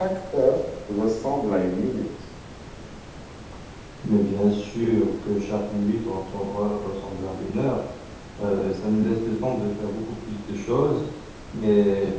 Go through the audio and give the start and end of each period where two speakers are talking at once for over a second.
none

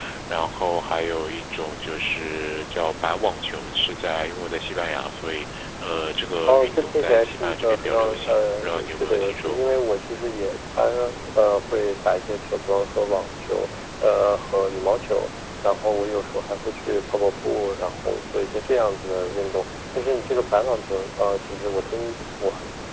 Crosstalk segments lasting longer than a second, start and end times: 6.5-9.7

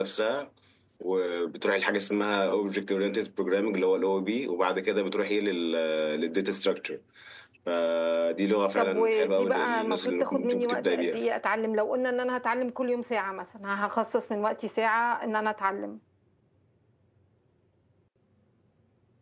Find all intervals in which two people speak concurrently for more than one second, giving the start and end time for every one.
8.8-11.2

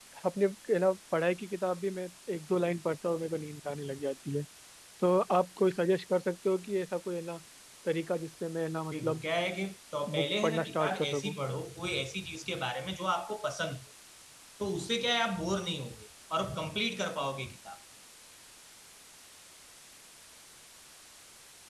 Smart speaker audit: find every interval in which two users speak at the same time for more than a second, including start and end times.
10.2-11.3

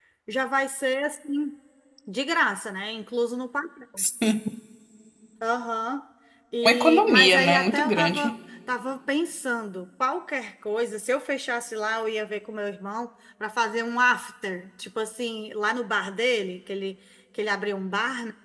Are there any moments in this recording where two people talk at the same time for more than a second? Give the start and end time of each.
6.6-8.3

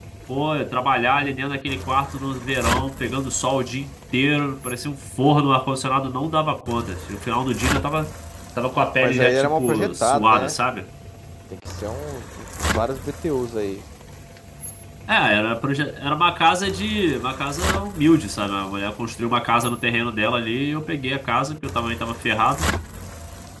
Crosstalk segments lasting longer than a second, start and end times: 9.0-10.6

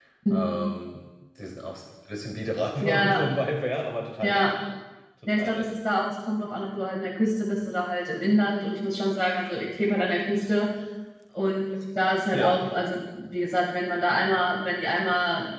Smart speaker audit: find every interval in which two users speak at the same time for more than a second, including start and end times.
none

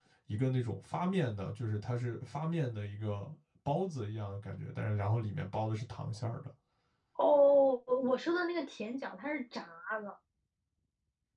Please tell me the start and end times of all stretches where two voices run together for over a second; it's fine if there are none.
none

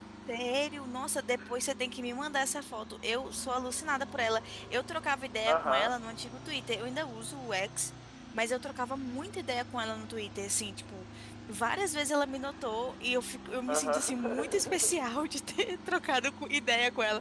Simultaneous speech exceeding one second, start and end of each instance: 13.7-15.1

